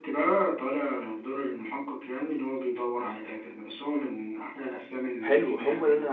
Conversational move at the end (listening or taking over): taking over